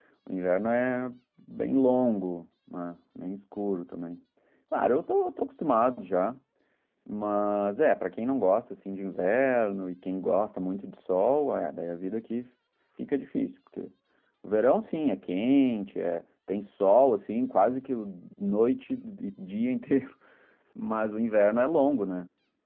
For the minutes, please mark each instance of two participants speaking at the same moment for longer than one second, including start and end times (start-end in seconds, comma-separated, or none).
none